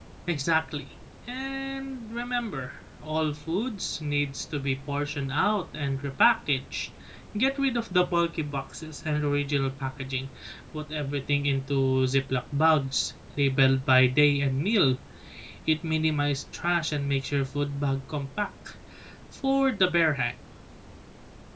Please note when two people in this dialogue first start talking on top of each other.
none

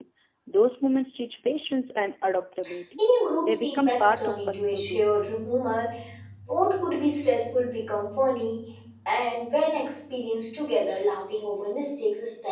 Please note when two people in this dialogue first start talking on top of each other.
3.4 s

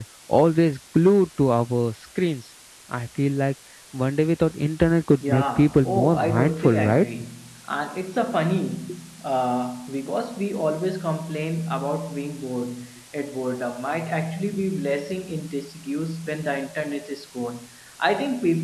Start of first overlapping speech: 5.2 s

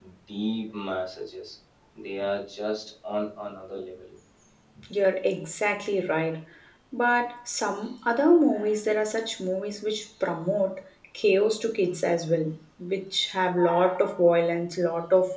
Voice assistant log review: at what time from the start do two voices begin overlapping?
none

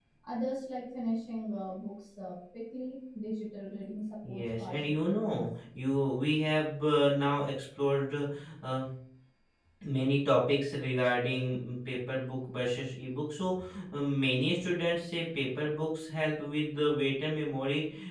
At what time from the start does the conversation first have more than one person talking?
4.2 s

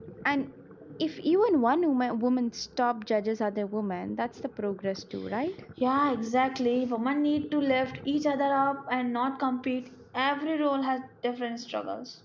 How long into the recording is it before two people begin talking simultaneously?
none

